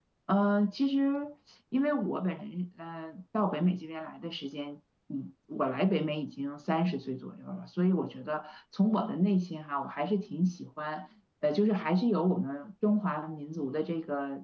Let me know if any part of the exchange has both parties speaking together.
No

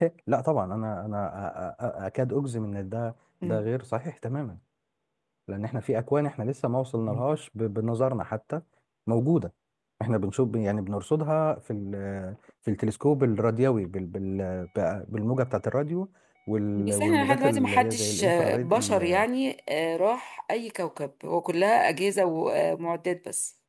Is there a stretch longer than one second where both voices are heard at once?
Yes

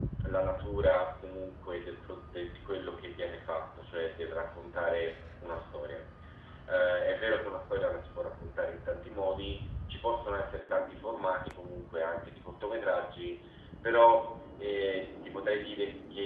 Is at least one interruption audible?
No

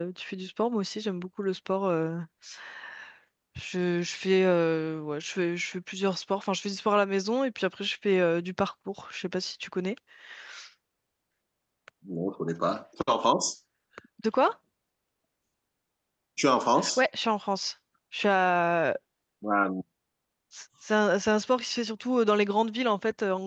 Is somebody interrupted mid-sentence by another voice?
No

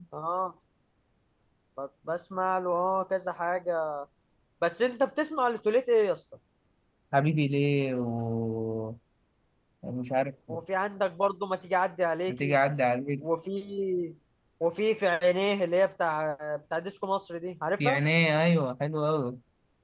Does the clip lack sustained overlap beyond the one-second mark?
Yes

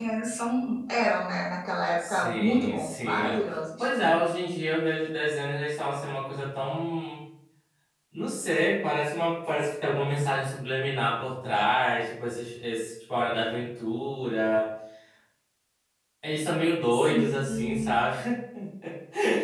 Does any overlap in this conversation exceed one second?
Yes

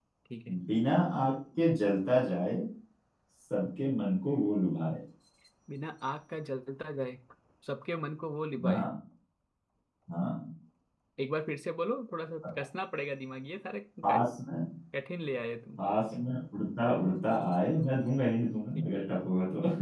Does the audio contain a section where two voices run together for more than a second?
No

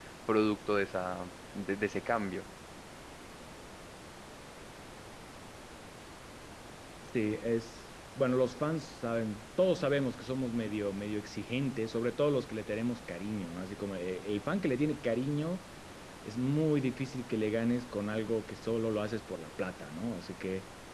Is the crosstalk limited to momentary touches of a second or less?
Yes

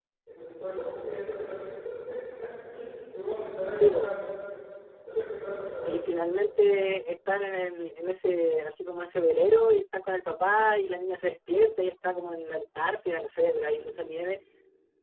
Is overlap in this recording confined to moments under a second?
Yes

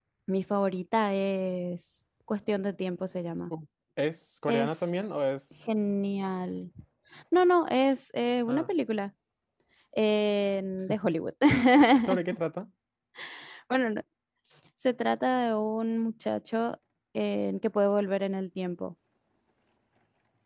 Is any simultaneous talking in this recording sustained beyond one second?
No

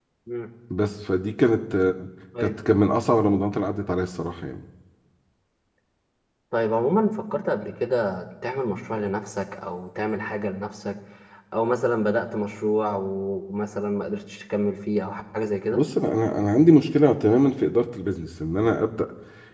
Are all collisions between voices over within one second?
Yes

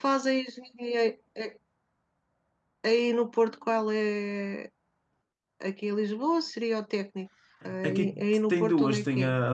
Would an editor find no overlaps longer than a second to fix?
No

